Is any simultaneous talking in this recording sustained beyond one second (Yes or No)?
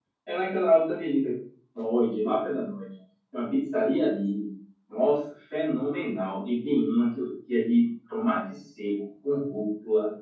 No